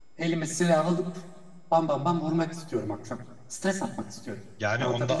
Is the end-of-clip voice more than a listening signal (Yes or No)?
Yes